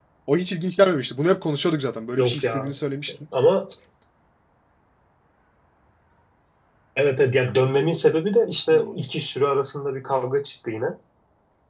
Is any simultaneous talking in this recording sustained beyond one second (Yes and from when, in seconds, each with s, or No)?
No